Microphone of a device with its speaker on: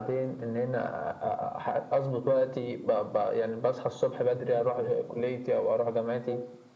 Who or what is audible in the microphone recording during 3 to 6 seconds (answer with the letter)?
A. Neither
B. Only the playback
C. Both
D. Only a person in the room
B